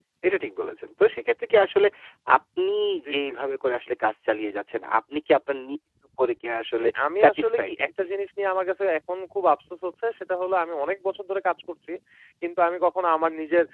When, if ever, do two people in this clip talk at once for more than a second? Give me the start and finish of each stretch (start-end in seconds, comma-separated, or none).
6.8-8.1